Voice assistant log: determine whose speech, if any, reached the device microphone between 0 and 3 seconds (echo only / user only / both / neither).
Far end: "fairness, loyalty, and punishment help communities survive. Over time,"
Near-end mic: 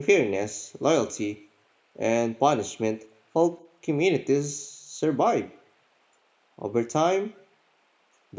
echo only